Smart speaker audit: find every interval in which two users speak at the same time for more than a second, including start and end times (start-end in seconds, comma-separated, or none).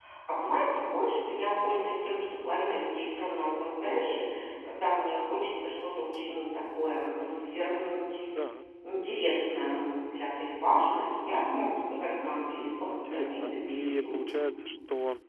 12.8-14.2